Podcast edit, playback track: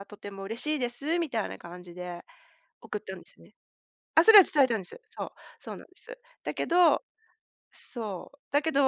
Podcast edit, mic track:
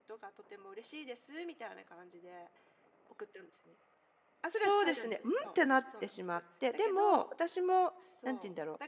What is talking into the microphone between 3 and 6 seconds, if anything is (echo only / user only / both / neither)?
both